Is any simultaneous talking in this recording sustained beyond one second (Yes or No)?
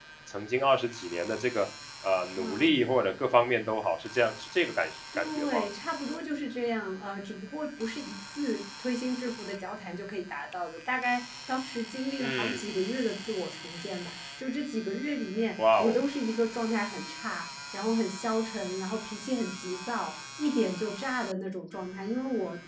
No